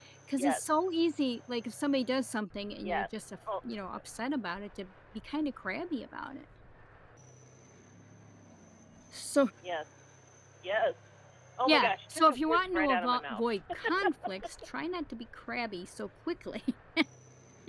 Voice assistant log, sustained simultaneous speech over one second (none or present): present